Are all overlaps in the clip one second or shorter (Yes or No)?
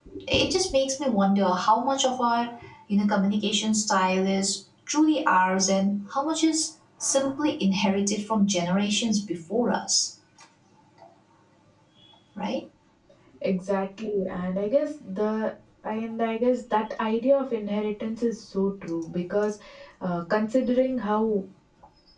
Yes